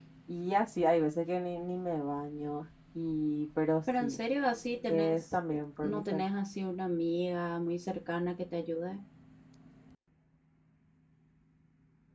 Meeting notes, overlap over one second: none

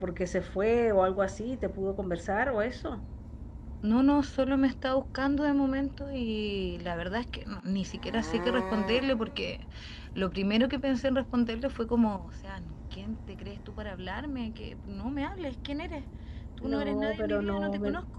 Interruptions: present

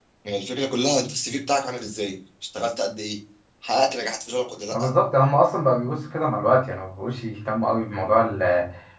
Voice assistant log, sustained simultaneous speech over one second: none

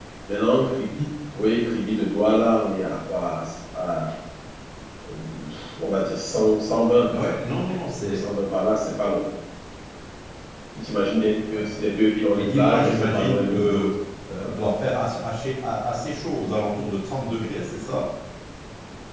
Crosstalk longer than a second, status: present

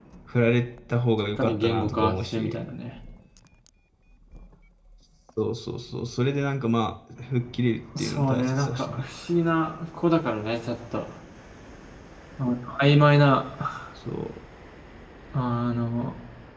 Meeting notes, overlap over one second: present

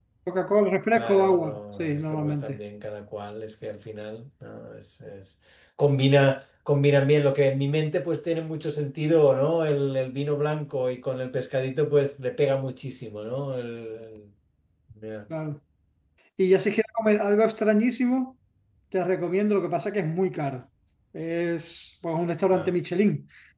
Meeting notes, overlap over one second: present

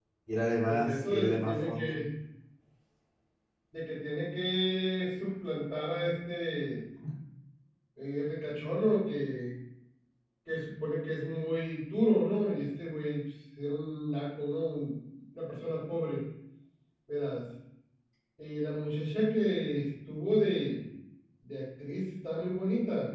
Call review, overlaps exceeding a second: present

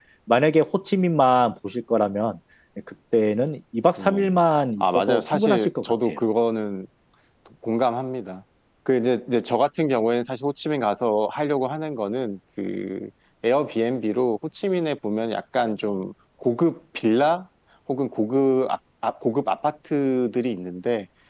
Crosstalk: present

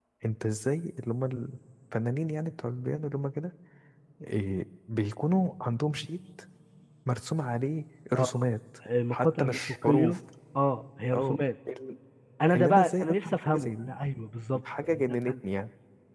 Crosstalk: present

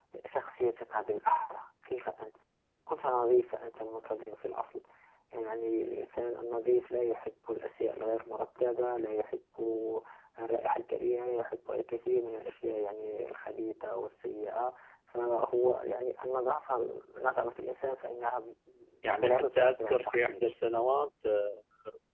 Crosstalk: present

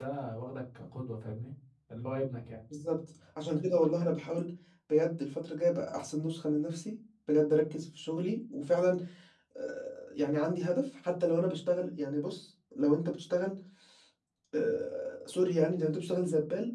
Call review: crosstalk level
none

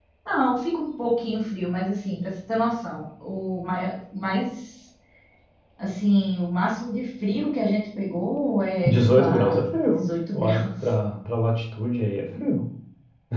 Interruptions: present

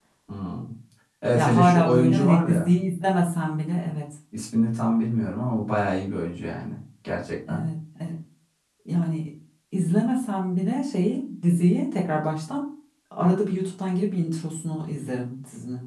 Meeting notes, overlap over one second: present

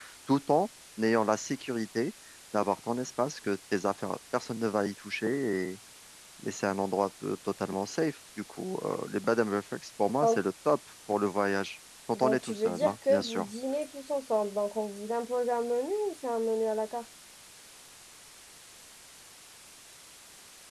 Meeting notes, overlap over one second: present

